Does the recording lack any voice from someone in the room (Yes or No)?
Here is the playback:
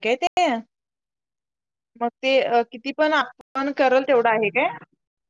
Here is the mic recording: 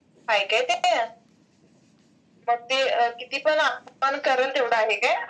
Yes